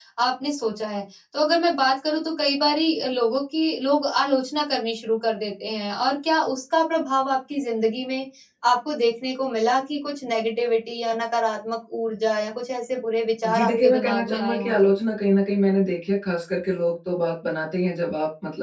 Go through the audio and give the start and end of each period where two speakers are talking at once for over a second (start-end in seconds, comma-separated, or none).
13.5-14.9